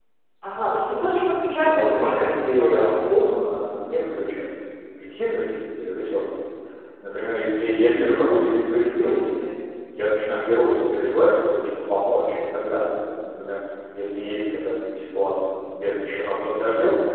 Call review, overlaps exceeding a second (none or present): present